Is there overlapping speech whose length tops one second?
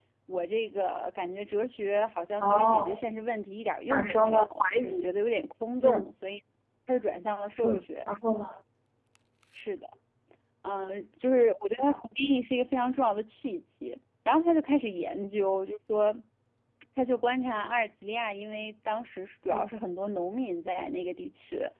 Yes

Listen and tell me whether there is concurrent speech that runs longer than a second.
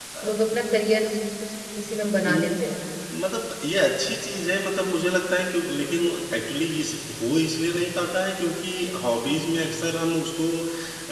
No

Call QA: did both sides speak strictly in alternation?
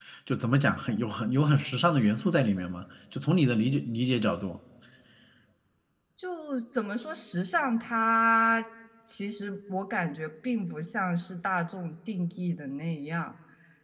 Yes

